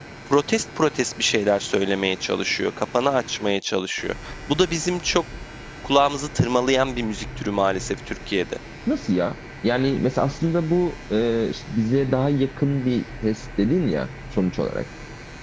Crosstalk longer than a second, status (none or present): none